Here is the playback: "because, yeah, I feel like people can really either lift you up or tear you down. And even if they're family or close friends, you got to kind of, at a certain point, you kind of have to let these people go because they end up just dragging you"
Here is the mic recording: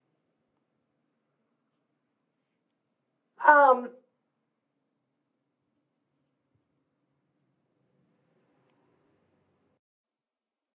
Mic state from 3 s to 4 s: user only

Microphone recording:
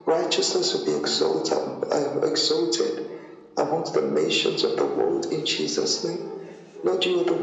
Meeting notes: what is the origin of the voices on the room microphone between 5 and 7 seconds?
echo only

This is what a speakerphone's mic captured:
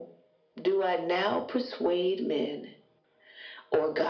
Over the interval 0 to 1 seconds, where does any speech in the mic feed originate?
echo only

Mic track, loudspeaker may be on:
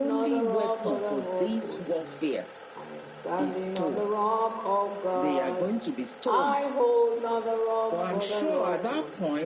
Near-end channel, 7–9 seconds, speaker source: both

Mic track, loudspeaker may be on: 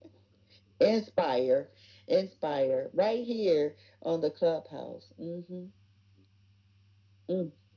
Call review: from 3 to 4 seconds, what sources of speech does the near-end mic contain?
echo only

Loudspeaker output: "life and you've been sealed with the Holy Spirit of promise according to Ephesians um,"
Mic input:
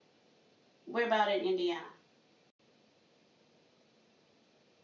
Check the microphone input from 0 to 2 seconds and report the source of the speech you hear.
user only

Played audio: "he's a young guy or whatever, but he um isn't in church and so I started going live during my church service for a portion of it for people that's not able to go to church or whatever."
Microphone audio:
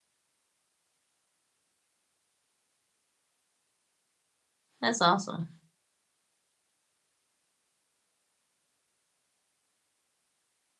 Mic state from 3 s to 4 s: neither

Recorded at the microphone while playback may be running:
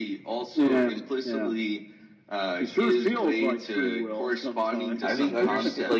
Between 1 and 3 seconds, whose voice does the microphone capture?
echo only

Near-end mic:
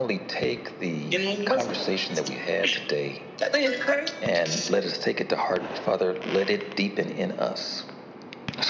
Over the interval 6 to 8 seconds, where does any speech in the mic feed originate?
echo only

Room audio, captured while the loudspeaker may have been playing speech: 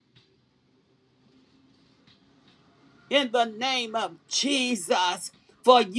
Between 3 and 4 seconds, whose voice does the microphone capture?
user only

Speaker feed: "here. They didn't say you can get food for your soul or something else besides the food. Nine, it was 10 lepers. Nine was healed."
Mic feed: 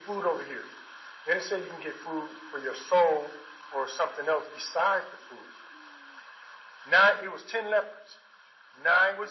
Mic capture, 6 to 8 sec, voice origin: echo only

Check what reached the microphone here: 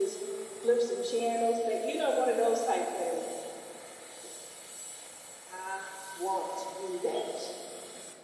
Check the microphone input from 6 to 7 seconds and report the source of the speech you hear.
echo only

